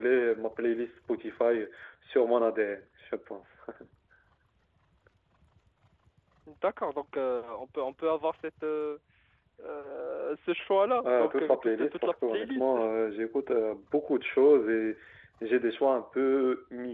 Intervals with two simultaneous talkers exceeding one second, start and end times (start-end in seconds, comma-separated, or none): 11.0-12.8